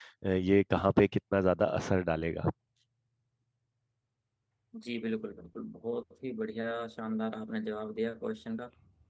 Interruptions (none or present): none